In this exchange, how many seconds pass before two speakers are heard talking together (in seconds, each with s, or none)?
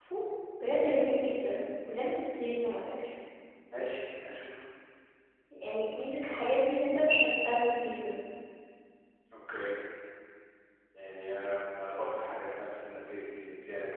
none